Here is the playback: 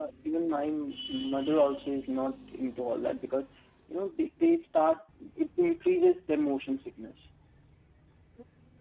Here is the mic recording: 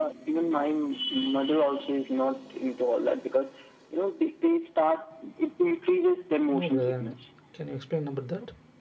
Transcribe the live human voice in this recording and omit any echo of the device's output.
no brother. Can you explain about that?

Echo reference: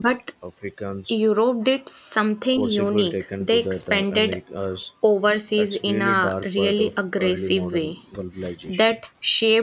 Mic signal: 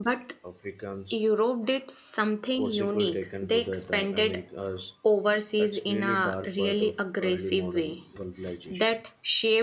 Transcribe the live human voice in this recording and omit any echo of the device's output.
none

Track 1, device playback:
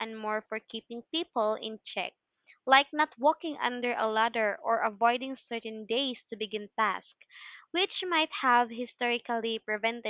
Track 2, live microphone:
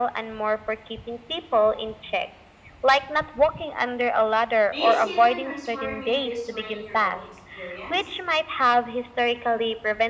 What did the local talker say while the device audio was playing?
Do you see them transforming in this way in your own experience?

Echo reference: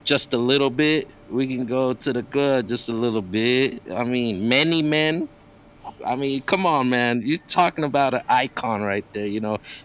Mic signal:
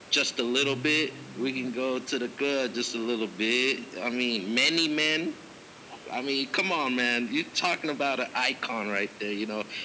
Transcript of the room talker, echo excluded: Um,

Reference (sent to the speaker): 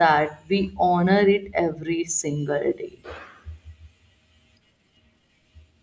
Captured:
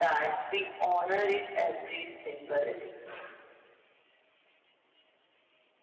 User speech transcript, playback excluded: none

